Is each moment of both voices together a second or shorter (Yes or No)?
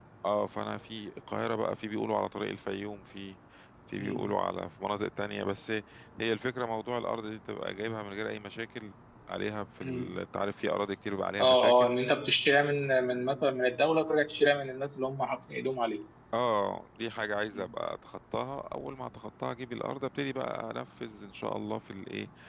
Yes